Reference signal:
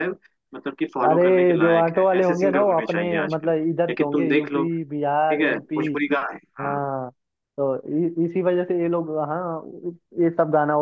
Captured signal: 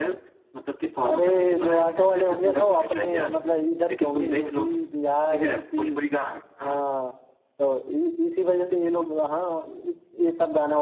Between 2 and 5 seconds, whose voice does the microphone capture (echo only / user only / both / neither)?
echo only